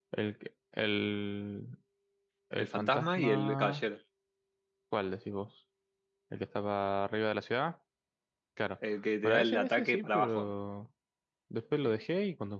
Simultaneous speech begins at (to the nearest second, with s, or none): 3 s